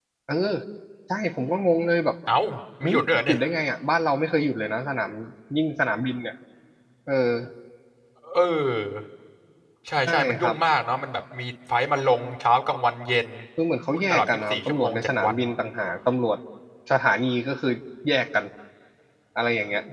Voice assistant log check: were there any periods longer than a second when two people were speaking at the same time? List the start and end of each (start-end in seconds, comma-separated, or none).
13.9-15.4